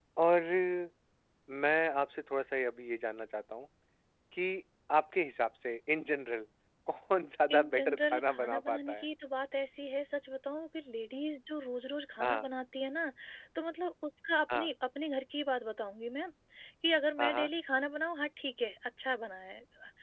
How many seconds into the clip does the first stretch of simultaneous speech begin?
7.5 s

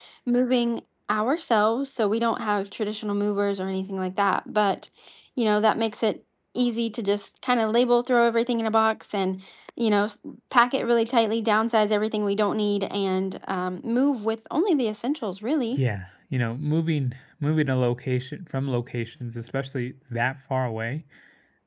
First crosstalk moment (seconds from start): none

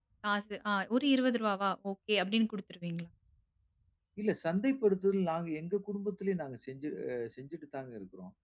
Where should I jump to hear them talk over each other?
none

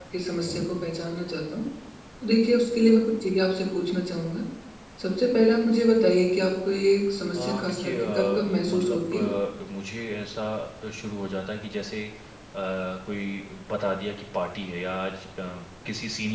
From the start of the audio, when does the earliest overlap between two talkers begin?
7.3 s

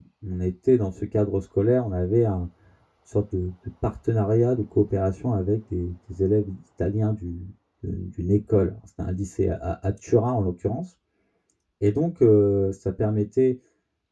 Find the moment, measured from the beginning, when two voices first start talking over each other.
none

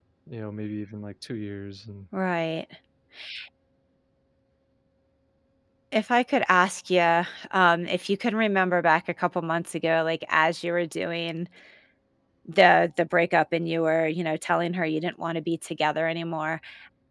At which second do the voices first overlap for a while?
none

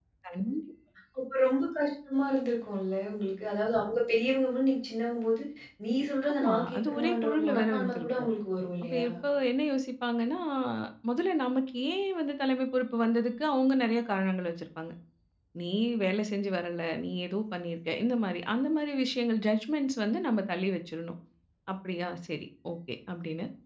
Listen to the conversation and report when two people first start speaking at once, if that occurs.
6.4 s

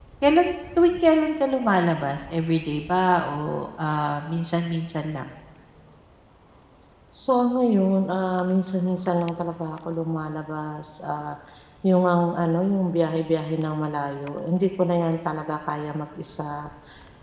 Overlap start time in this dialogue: none

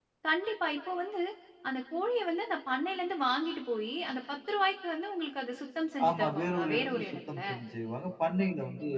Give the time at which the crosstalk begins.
6.0 s

